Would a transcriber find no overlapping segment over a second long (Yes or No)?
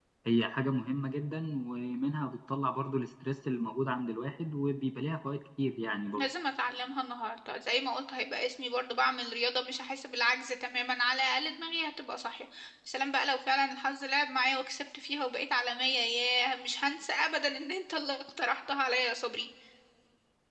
Yes